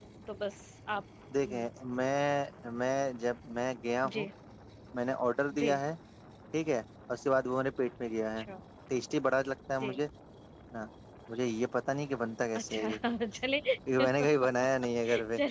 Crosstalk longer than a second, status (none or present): none